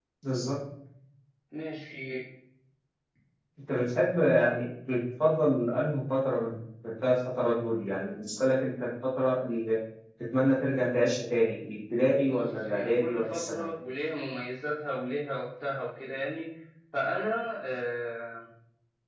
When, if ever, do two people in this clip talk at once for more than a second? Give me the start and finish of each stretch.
12.3-13.7

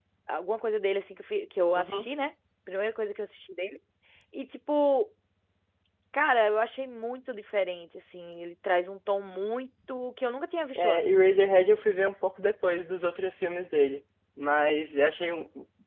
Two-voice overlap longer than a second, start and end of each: none

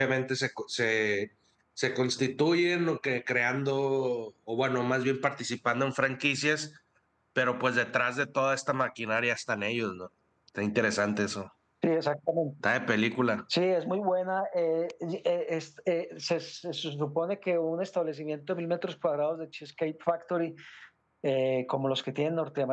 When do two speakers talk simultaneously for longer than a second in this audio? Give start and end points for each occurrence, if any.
none

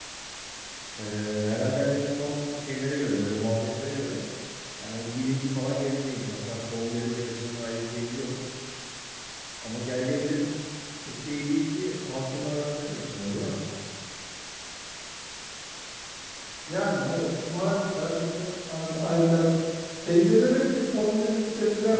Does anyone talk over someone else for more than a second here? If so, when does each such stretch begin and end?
none

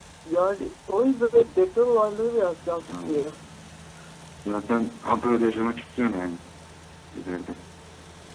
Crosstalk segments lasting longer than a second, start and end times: none

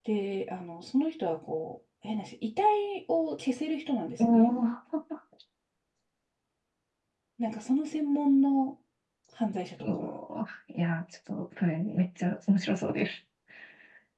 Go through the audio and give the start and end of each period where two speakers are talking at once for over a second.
none

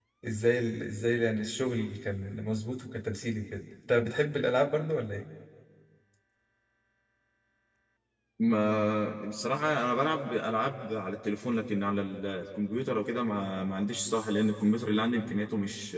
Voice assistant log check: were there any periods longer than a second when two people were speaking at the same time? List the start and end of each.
none

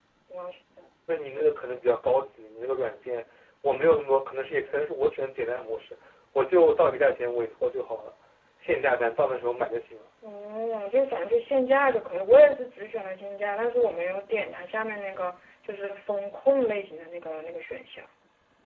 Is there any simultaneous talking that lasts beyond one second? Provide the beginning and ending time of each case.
none

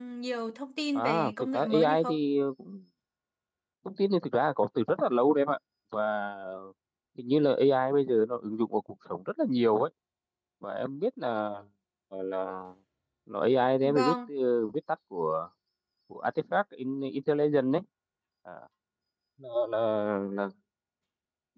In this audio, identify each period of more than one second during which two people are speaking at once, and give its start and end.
0.9-2.2

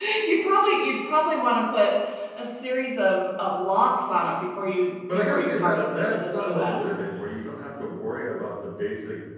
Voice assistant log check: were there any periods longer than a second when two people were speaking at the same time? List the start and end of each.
5.1-6.9

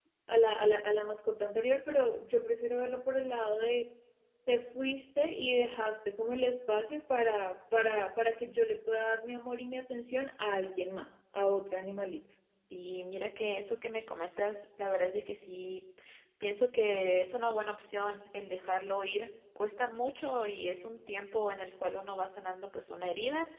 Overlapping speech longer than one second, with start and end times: none

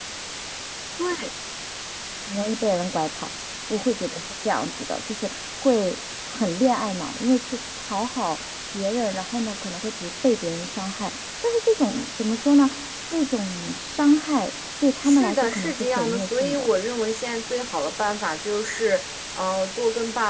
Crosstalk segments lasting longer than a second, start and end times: 15.0-16.7

